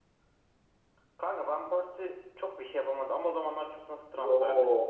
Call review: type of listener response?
taking over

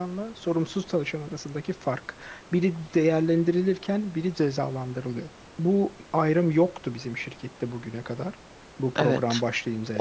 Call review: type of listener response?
taking over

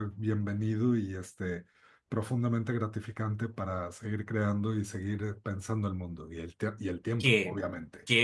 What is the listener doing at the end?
taking over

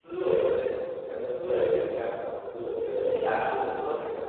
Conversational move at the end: listening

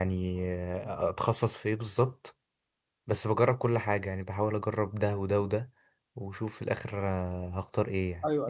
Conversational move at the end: taking over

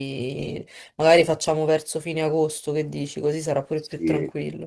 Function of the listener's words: taking over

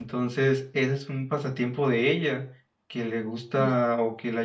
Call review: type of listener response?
listening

